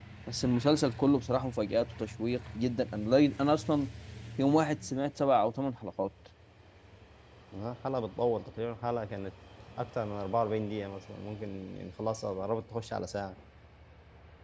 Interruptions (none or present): none